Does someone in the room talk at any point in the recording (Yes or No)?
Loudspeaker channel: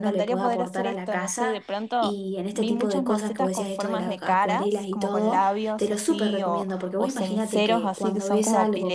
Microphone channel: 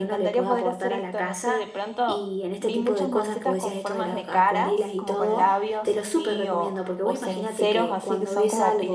No